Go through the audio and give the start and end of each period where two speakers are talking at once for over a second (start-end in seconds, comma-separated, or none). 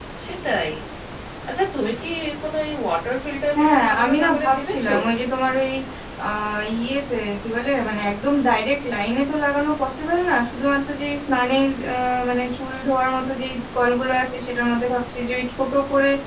3.6-4.9